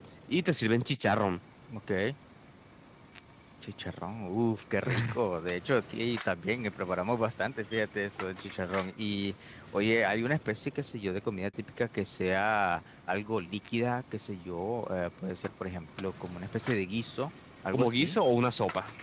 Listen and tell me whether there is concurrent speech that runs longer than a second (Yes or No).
No